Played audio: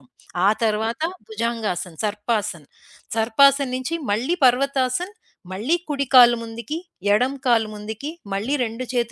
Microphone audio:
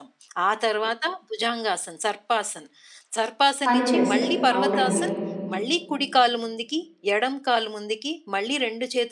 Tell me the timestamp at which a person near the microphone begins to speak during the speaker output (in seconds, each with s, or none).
3.6 s